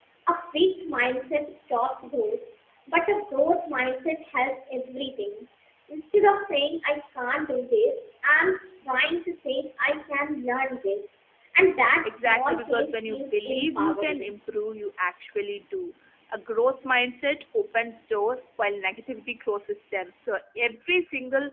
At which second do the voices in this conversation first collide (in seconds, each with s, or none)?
12.0 s